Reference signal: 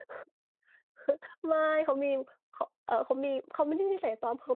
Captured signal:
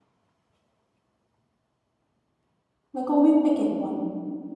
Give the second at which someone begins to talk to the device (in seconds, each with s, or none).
2.9 s